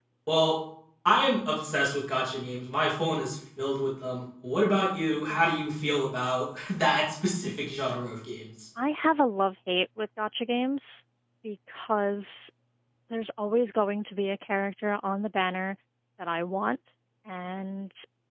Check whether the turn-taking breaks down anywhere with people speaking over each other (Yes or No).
No